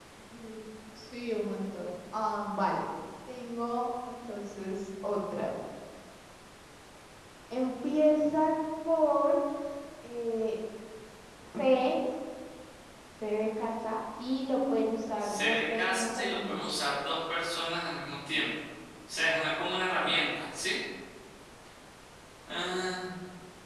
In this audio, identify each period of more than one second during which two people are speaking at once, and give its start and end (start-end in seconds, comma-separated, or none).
15.2-16.7